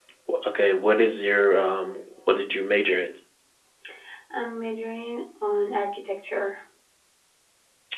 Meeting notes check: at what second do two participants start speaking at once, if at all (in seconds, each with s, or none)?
none